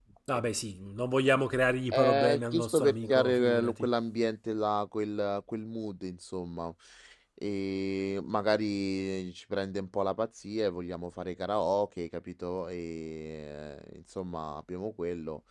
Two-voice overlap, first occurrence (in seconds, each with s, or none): 1.9 s